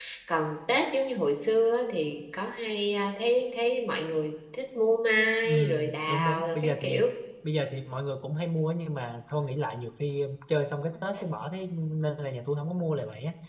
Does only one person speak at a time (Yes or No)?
No